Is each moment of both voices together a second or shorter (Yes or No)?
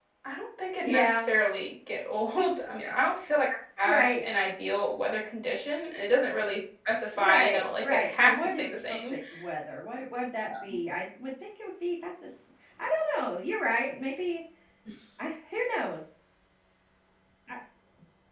No